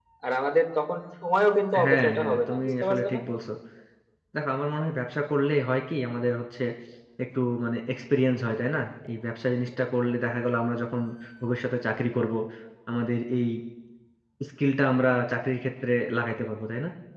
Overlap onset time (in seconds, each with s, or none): 1.7 s